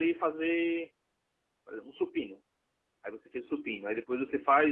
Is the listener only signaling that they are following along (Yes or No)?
Yes